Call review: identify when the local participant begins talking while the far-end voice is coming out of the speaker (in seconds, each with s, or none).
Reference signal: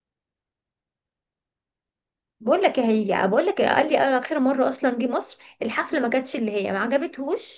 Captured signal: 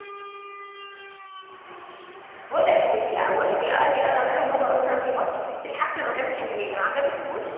none